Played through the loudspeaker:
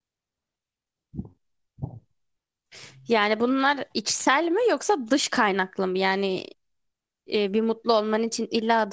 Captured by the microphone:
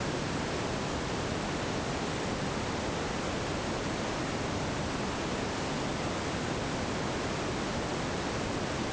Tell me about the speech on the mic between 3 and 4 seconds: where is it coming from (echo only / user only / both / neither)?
neither